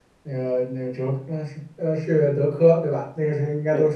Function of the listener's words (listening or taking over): listening